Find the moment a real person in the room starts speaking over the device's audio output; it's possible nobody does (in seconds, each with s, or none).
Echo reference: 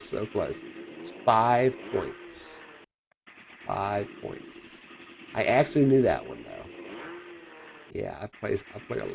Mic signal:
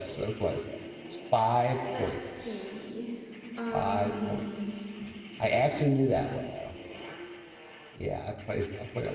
1.9 s